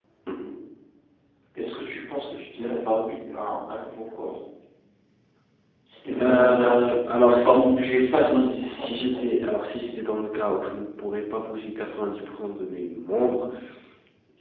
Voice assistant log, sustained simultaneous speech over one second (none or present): present